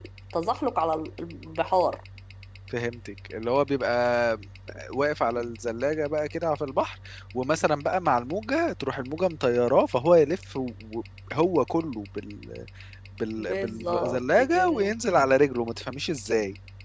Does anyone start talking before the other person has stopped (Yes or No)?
Yes